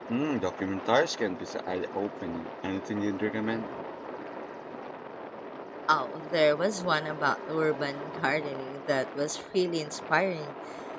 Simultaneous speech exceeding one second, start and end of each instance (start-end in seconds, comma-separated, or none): none